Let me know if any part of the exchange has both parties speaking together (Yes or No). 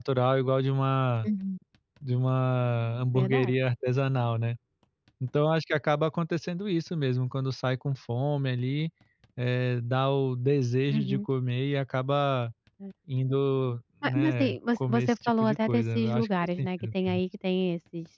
Yes